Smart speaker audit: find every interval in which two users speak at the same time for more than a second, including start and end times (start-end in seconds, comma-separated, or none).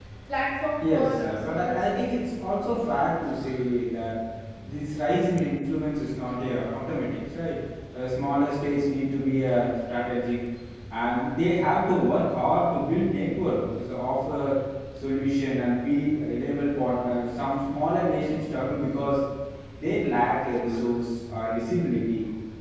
0.8-2.1